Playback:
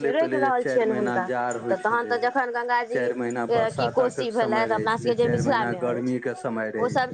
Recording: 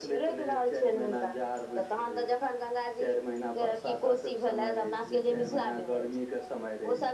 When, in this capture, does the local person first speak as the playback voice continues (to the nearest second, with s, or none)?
none